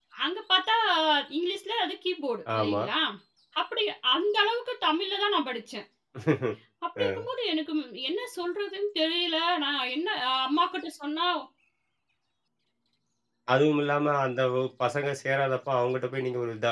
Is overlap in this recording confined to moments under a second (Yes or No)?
Yes